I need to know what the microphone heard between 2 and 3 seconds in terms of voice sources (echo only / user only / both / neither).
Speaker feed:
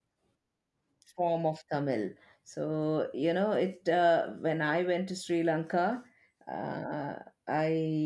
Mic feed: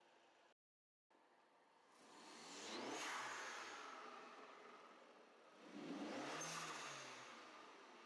neither